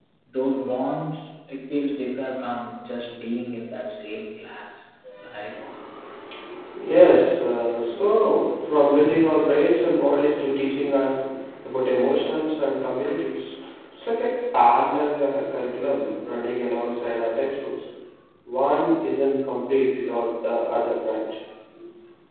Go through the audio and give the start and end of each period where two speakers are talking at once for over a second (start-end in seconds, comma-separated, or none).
none